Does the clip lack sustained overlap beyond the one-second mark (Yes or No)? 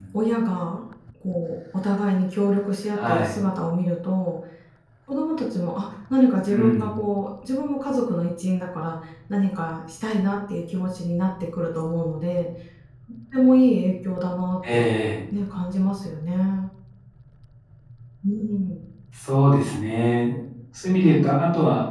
Yes